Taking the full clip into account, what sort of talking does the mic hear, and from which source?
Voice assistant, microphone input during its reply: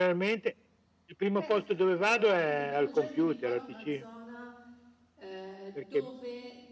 both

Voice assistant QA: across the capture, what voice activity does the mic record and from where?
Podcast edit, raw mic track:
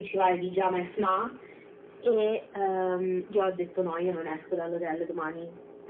echo only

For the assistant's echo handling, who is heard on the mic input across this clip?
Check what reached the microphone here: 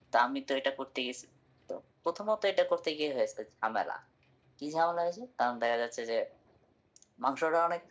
echo only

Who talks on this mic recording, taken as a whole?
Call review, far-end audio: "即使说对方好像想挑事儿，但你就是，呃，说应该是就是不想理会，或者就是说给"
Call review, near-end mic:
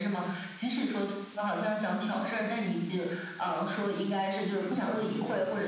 both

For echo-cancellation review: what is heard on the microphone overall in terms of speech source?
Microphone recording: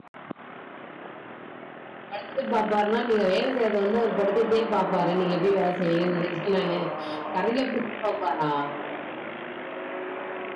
user only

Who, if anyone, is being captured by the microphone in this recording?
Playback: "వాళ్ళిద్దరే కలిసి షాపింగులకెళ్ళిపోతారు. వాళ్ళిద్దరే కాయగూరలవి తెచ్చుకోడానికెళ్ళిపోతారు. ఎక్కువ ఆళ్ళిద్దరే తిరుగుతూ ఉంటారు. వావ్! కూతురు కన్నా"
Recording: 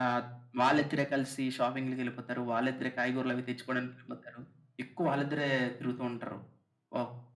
echo only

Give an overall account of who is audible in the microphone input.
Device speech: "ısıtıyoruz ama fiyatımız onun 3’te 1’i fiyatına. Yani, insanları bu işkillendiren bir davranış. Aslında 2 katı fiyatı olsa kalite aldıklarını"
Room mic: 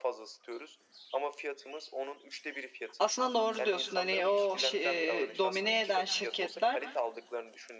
both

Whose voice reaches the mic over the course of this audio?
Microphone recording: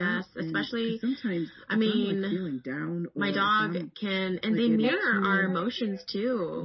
both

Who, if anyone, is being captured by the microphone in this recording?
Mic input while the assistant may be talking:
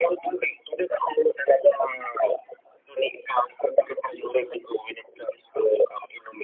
echo only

